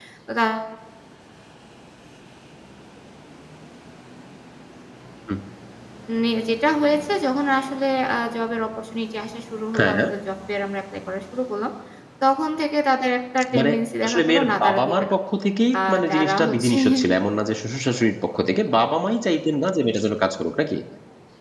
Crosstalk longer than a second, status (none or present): present